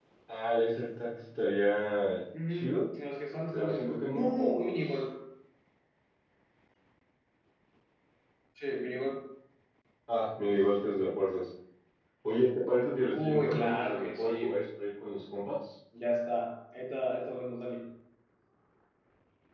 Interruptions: present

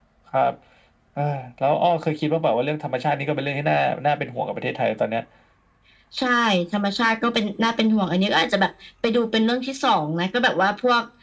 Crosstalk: none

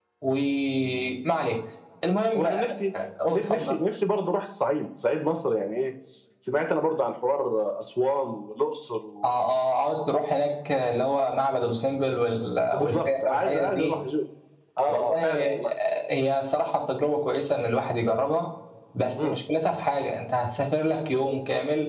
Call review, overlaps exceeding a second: present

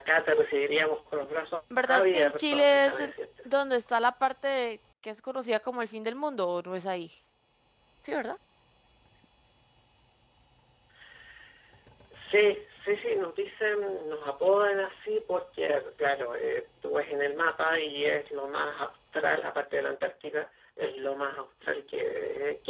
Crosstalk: present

